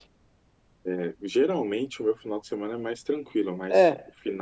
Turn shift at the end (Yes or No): No